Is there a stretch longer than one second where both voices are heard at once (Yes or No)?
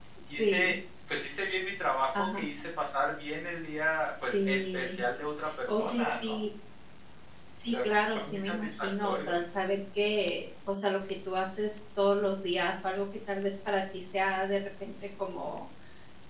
Yes